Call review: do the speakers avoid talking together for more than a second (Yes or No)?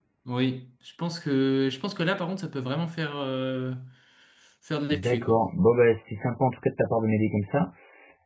Yes